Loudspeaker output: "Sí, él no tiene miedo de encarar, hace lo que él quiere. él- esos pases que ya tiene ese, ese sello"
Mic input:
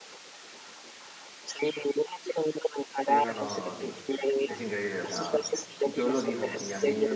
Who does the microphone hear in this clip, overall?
both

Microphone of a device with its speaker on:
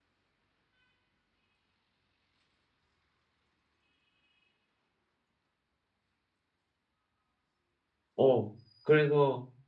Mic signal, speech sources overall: user only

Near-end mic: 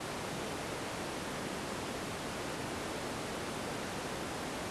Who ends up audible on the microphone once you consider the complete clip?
neither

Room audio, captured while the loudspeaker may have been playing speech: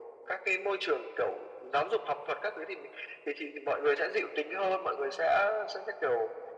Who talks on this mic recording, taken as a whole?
echo only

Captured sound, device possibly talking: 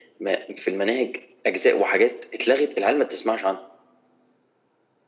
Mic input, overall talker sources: echo only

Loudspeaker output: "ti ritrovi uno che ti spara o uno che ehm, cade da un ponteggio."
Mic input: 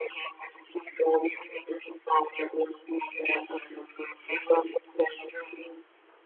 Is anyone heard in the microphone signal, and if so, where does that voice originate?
echo only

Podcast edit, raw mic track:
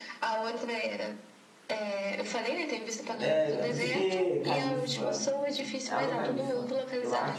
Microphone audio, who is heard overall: both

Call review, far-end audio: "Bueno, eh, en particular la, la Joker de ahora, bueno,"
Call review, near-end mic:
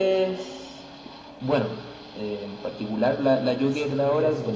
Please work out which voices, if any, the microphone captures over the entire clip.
both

